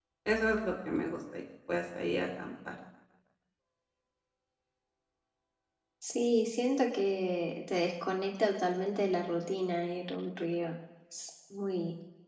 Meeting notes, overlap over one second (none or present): none